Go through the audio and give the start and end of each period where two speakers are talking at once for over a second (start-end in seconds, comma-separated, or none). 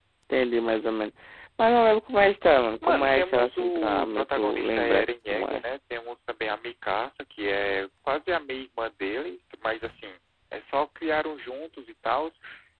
2.8-5.6